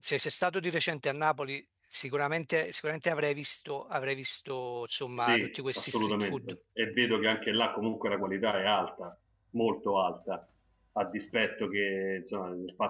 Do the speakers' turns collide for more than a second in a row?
Yes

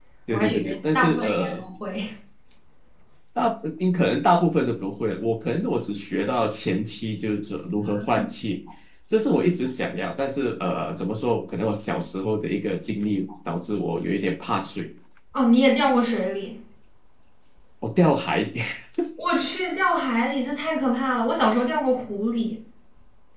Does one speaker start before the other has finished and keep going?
Yes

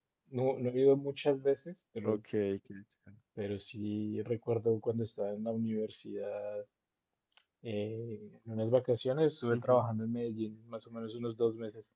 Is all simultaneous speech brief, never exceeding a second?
Yes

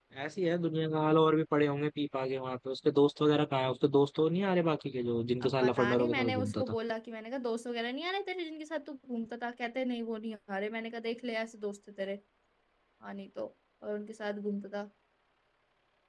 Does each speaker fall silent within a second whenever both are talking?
No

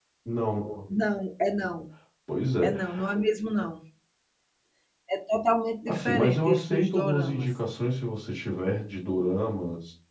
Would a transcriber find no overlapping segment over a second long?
No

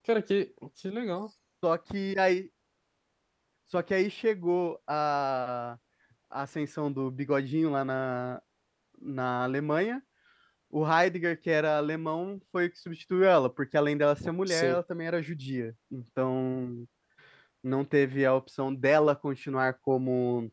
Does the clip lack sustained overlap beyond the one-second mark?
Yes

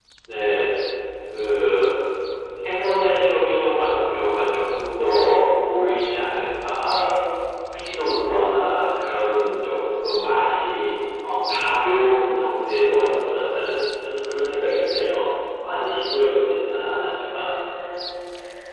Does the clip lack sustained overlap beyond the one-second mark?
Yes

